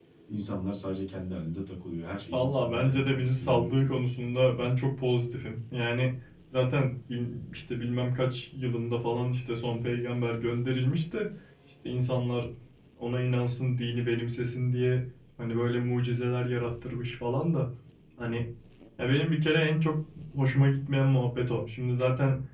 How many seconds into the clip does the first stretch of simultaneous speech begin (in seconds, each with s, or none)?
2.3 s